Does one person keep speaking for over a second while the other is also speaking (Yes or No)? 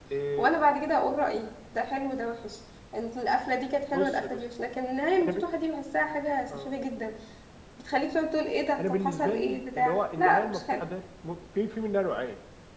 Yes